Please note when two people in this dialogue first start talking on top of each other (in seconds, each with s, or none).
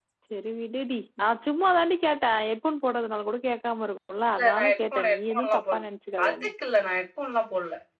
4.4 s